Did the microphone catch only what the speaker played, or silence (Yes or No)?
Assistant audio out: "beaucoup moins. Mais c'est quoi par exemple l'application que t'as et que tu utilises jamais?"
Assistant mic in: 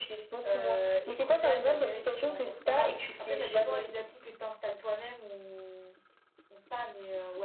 No